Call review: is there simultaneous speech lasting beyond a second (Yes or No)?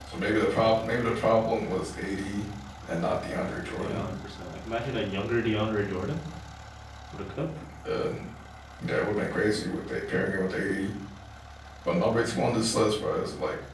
No